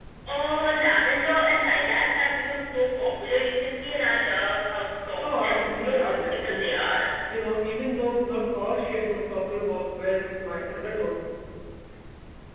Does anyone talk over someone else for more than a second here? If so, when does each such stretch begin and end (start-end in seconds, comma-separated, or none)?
5.2-6.7